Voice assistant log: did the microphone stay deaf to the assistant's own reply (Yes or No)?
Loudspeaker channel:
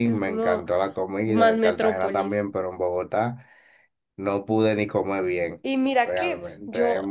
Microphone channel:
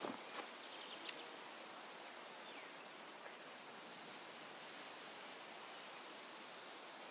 Yes